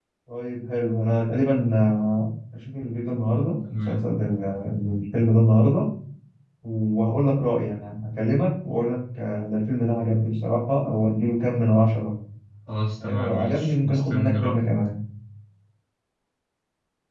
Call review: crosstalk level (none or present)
present